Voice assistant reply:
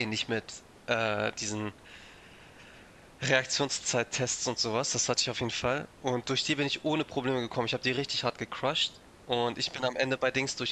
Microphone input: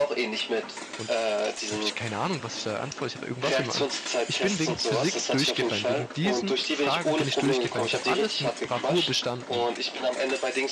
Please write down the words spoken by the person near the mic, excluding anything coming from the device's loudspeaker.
Und das das habe ich keine Ahnung, was ich da antworte. Ich habe irgendwas immer an. Ich bin wegen Physik durchgefallen. Wegen diesen Fragen bin ich durchgefallen. Ich habe alles mit Bravour bestanden.

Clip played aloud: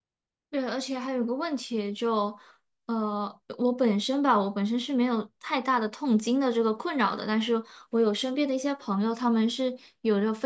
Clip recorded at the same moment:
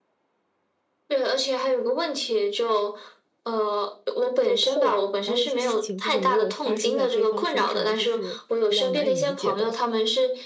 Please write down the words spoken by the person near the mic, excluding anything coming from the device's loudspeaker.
这个痛，然后一些事情就是没有发生在对方身上，就是比较难以理解的。

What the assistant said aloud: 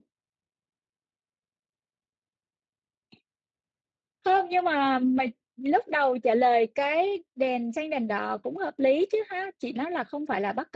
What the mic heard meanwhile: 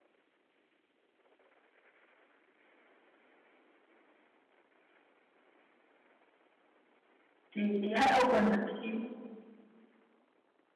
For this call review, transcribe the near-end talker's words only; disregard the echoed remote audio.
thì chị hãy open nó đi.

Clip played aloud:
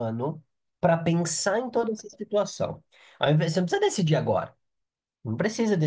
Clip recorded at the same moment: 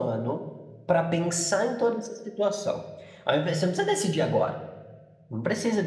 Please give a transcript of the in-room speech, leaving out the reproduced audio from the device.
none

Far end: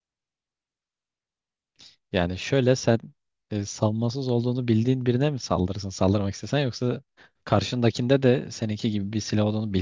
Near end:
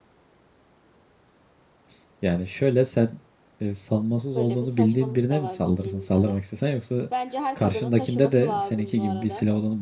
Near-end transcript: Böyle bir saçmalık da var bildiğin üzere. Bence her kadının taşıması lazım bu arada.

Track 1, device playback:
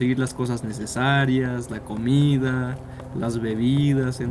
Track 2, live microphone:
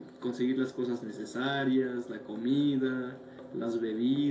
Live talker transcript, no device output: none

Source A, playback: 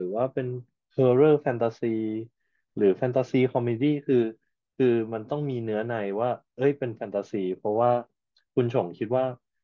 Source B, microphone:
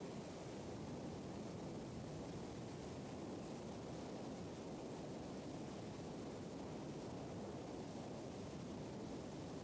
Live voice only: none

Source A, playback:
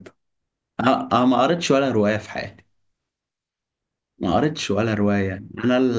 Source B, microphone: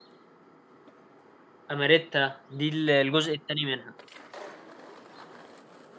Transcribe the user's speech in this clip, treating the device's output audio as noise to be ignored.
أماريتا دي ال- الجزء التاني منها

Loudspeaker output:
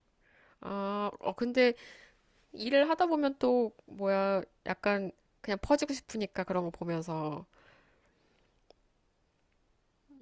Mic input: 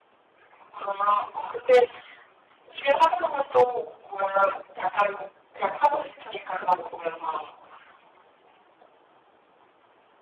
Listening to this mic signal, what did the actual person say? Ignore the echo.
none

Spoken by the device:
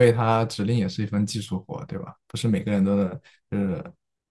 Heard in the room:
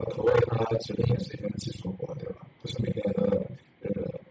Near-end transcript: none

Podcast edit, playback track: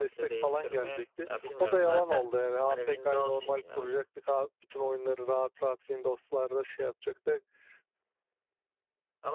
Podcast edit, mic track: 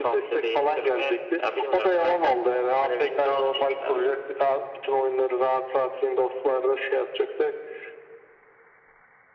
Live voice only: none

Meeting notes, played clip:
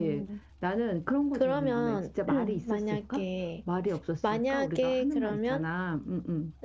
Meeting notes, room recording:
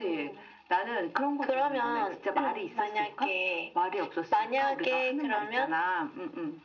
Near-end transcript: none

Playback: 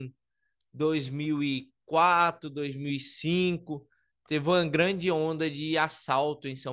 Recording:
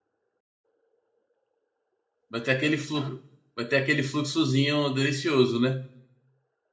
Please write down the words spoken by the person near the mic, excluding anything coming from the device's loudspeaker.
vai ter aquele fluxo, vai ter aquele fluxozinho delicioso, né?

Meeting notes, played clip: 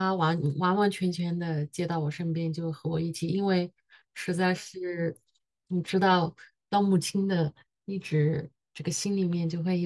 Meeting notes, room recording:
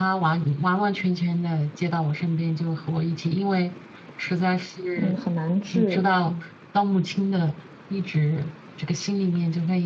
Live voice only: 嗯，很难治。嗯，

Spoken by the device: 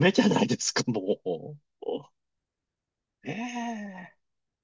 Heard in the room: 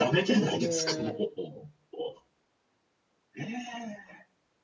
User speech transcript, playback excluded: で

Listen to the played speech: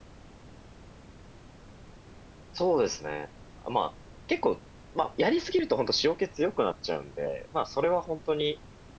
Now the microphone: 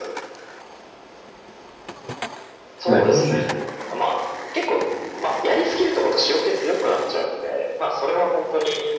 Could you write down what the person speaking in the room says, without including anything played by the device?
はい。美味しいですよ。

